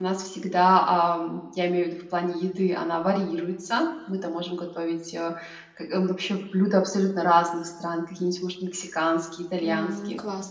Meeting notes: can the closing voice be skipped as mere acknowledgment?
Yes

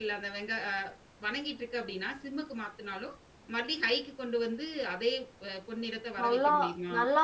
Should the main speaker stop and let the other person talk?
Yes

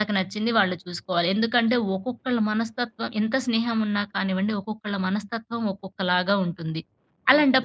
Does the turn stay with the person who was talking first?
Yes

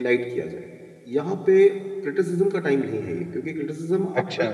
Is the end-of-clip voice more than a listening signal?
No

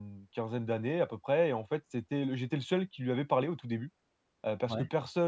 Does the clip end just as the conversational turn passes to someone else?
No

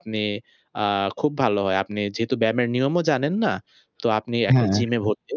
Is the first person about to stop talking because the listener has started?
No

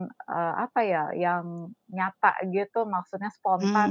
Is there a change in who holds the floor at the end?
Yes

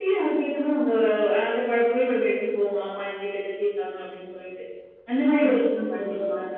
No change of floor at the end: Yes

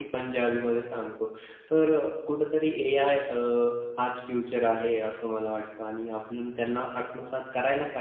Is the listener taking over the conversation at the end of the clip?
No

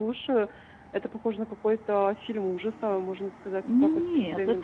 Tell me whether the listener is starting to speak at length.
Yes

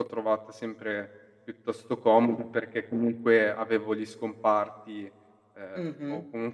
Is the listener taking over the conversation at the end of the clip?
Yes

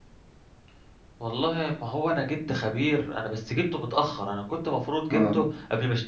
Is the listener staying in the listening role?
Yes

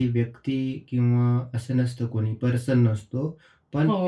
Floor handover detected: Yes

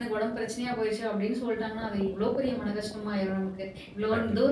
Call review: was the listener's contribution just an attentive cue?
Yes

